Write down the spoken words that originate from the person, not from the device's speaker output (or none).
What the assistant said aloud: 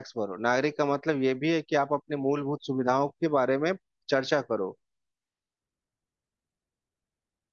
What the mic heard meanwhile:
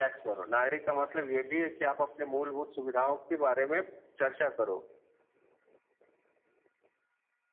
none